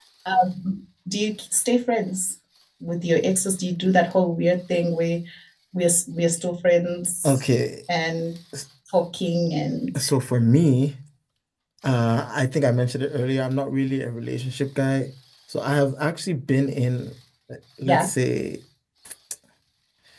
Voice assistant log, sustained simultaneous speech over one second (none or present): none